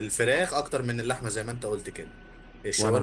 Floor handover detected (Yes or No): No